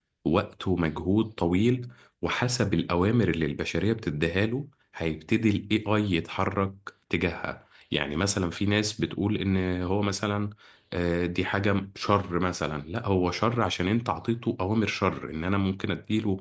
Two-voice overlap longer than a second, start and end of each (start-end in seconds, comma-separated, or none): none